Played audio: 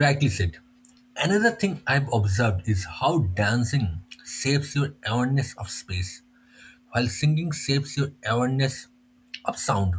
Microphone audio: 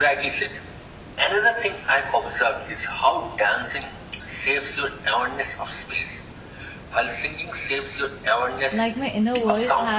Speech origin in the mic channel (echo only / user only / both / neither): both